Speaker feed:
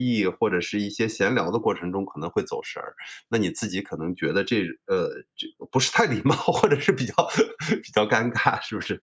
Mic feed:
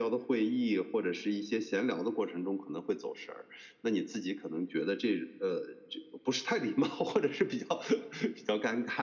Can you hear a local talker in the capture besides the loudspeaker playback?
No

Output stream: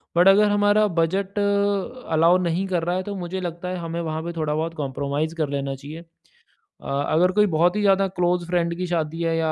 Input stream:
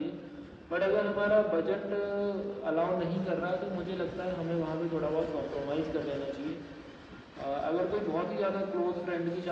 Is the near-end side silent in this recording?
Yes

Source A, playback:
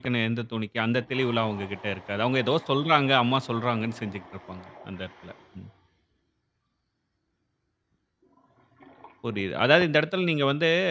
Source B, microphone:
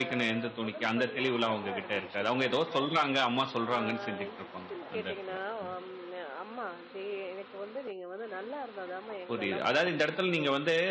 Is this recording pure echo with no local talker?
No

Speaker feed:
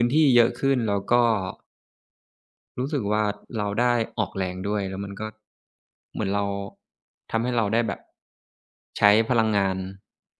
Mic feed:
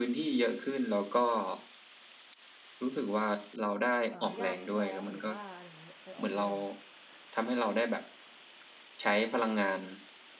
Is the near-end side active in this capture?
Yes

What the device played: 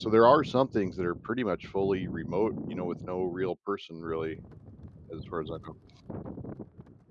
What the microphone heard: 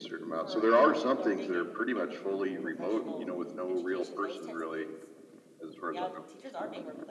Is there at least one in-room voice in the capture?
Yes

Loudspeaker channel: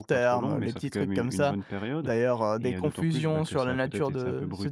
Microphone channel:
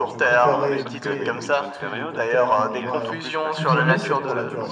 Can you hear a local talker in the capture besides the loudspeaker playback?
Yes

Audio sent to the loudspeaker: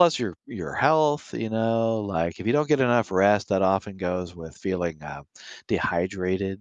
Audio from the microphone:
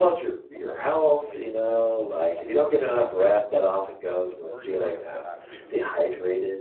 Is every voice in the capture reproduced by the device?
No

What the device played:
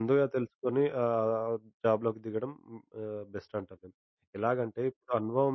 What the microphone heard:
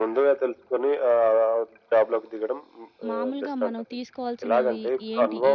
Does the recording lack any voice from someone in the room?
No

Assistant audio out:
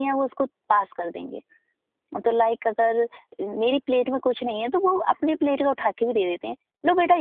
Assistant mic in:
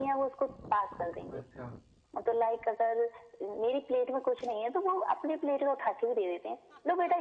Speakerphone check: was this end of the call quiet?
No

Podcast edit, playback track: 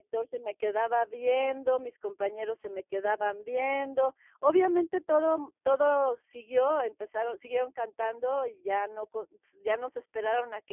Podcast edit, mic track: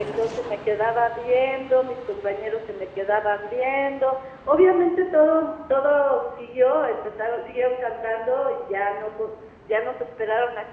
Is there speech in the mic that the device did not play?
No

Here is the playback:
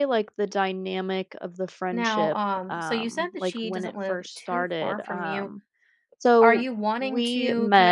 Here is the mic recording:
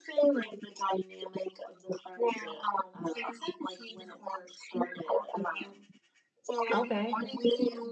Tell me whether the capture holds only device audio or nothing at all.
No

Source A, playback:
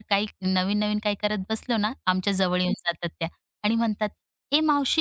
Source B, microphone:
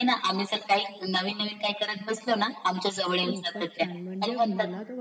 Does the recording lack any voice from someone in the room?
No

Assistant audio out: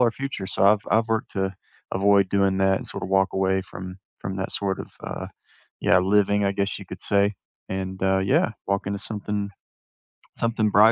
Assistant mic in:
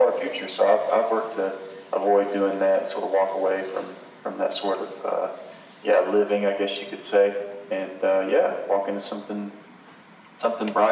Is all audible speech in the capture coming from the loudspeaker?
Yes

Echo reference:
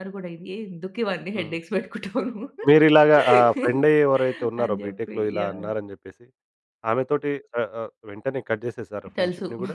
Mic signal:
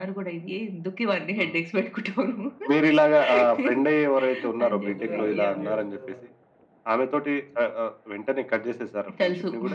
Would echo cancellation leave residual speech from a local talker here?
Yes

